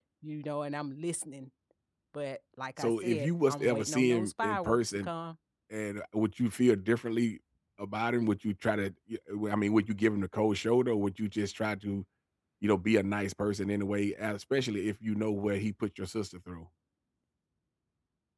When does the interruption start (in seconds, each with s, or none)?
2.8 s